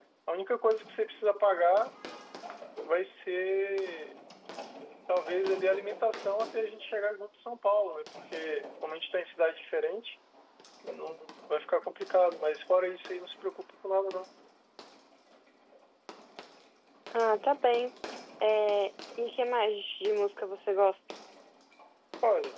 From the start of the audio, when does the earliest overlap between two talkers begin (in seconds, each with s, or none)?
none